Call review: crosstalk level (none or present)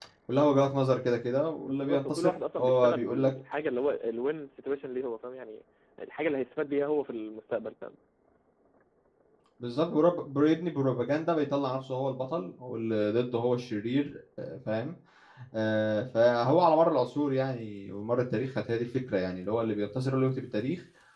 present